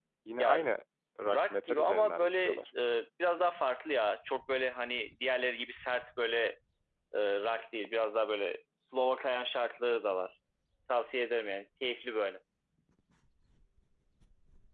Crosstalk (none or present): present